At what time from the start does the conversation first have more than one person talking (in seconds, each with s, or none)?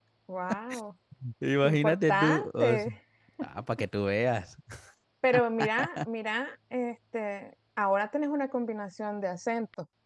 1.6 s